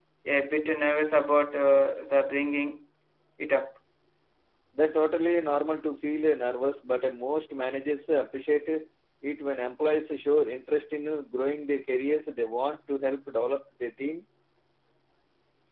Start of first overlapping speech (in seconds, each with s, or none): none